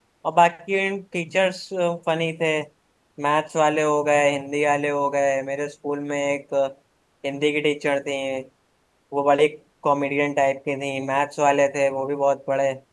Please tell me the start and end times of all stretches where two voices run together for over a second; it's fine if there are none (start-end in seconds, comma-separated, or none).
none